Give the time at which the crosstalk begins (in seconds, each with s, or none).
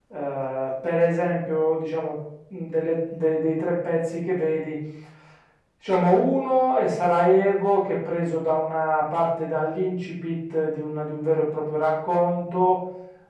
none